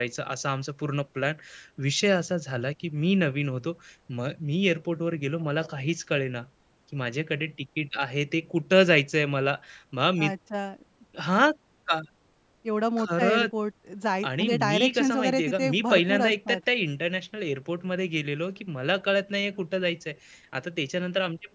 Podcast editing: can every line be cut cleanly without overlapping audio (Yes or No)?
No